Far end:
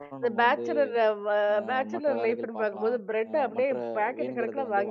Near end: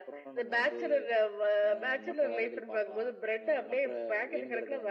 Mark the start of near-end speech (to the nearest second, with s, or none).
none